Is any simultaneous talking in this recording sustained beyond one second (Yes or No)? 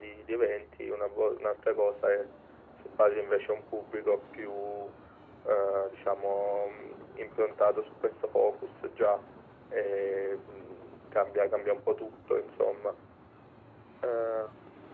No